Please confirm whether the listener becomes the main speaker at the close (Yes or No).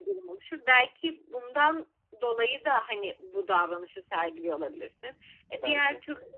No